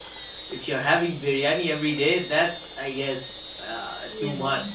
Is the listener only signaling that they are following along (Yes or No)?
No